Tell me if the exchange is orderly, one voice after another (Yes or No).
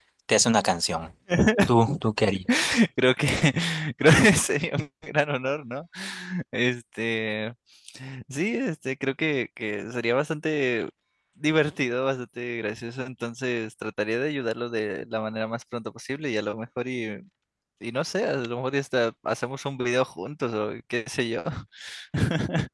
Yes